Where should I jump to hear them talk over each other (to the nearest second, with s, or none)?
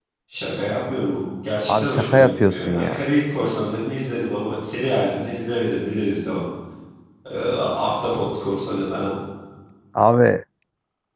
2 s